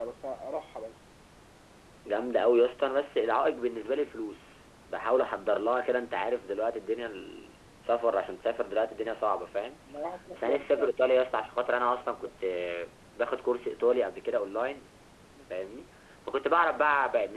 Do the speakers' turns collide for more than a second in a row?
No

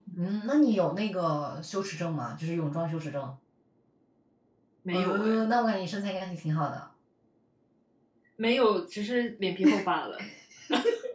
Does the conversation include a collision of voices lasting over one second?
No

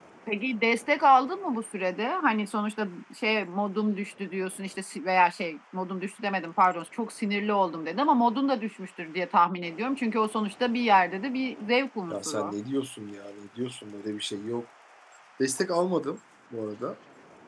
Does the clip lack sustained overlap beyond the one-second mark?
Yes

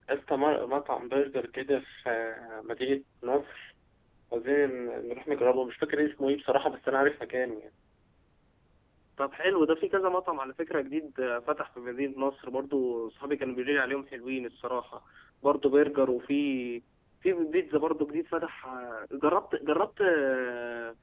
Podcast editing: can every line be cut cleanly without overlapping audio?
Yes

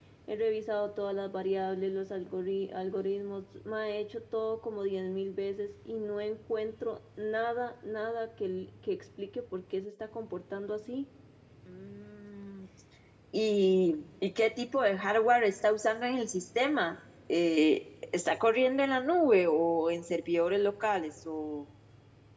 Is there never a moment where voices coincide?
Yes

